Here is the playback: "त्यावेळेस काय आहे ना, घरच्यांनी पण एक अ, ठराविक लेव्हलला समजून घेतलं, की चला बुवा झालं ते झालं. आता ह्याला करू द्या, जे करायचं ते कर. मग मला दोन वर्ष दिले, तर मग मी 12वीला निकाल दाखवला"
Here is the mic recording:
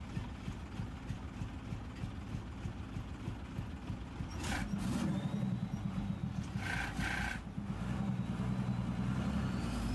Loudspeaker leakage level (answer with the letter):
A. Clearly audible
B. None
B